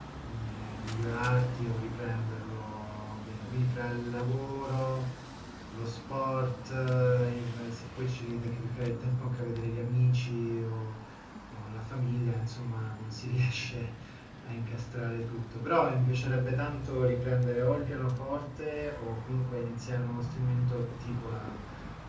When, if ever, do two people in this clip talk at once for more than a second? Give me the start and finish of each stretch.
none

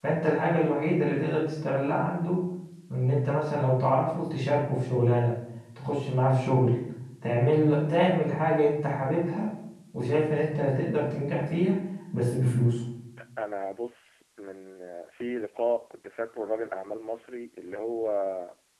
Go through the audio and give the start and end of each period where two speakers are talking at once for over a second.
none

